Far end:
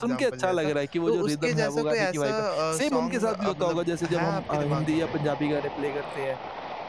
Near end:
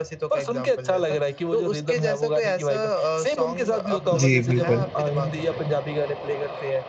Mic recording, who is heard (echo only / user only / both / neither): both